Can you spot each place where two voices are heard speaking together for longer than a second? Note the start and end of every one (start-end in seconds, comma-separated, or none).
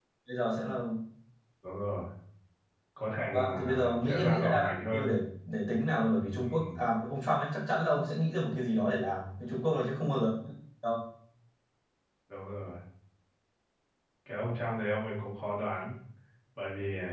3.3-5.1